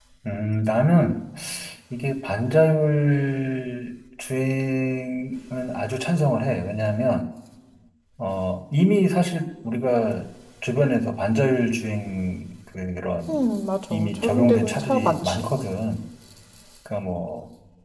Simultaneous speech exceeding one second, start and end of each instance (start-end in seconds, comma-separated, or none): 13.9-15.5